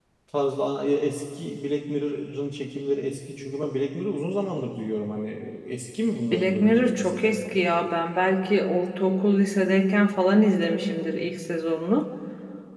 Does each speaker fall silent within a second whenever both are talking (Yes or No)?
No